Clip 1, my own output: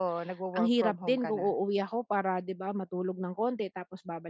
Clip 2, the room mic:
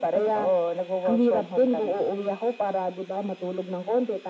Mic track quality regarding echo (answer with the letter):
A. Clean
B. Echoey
B